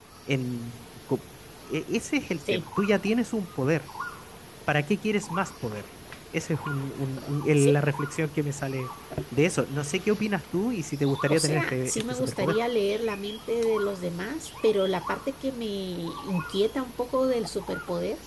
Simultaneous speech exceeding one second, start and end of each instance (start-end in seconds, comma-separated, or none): 11.3-12.6